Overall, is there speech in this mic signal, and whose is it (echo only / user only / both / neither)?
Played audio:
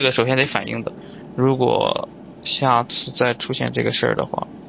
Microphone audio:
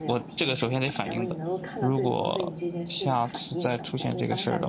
both